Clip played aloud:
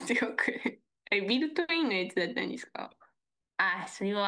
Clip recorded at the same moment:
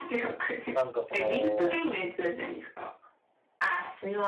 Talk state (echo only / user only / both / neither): both